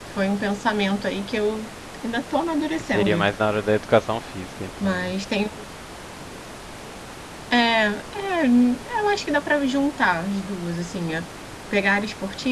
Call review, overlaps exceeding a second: none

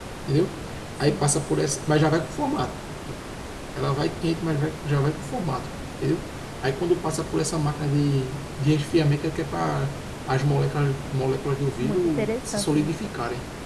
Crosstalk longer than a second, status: present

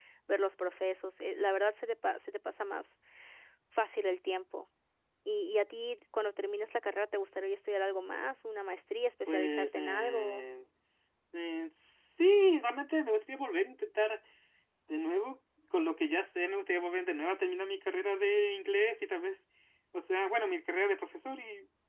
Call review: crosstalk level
present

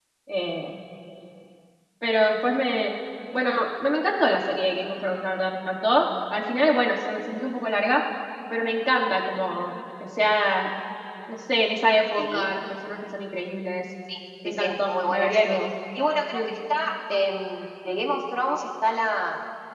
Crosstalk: present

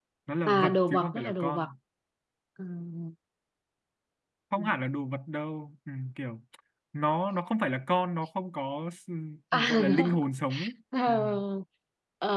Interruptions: present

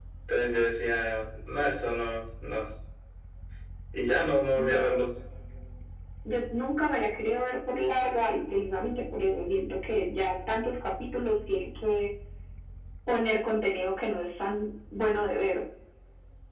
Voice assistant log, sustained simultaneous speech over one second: none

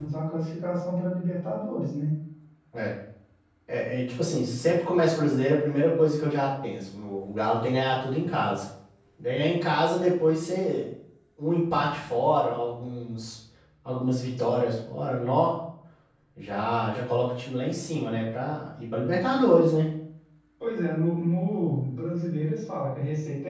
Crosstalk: none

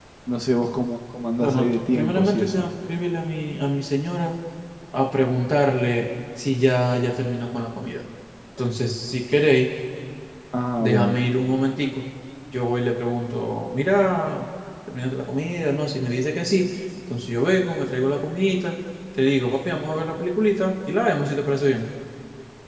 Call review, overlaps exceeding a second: present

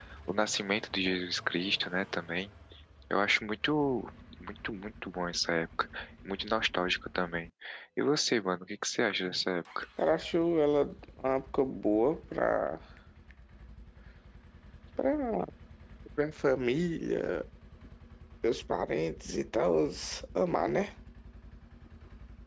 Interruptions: none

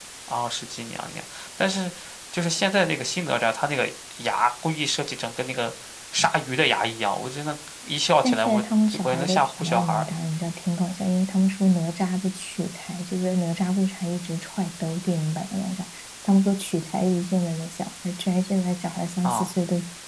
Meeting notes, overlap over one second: present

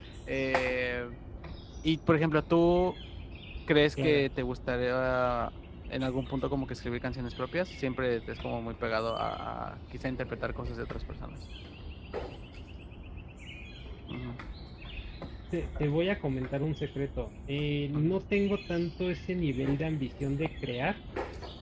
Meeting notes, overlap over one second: none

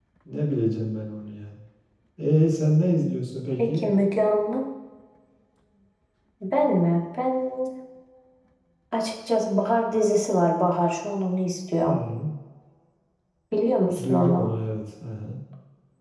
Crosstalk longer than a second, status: none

